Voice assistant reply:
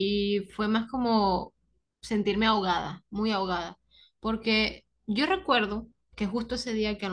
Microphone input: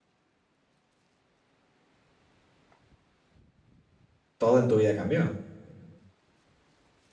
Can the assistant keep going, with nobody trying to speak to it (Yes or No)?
No